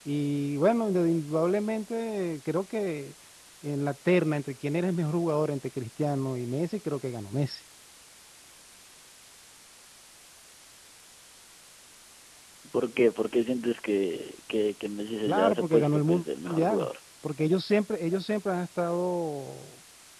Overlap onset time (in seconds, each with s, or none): 15.3 s